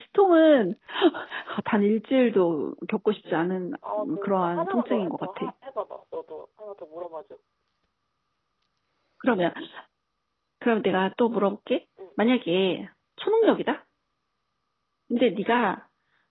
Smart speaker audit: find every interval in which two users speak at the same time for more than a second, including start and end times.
4.0-5.5

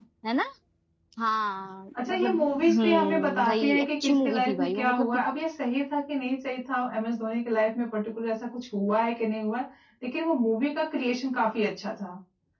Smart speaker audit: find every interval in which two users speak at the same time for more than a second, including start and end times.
2.0-5.2

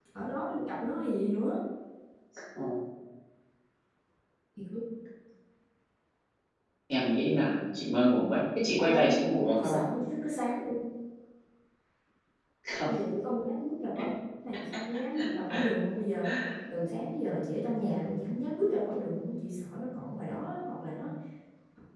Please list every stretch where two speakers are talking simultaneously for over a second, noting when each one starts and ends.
none

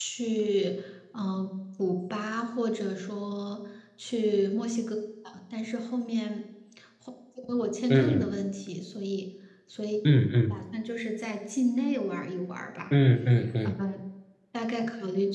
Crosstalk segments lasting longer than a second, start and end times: none

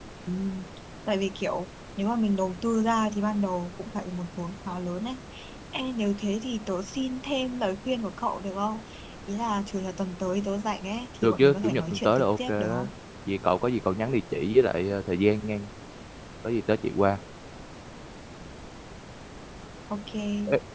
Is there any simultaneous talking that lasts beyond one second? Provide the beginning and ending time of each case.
11.2-12.9

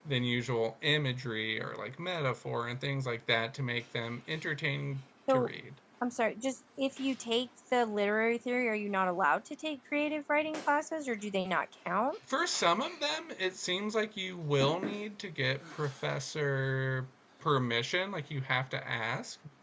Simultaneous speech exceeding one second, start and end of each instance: none

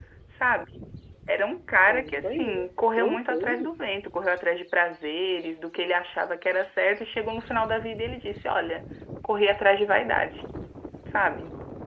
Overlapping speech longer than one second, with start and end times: 1.9-3.7

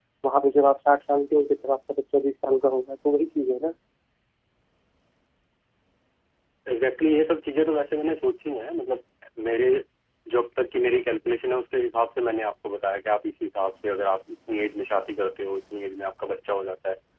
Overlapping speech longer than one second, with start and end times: none

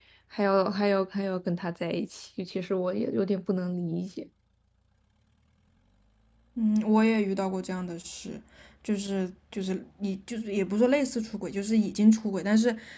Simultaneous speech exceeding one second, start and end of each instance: none

